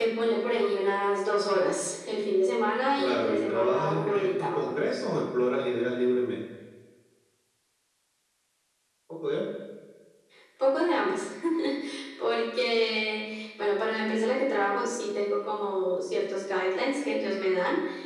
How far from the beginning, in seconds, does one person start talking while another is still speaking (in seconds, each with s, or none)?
3.0 s